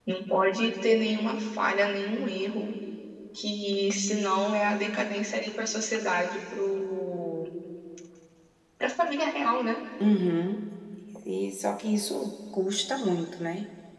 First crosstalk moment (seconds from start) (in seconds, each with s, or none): none